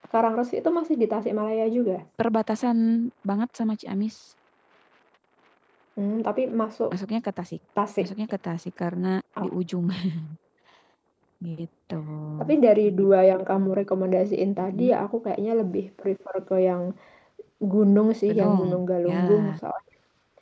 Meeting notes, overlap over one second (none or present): present